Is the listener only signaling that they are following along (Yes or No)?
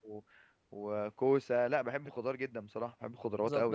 No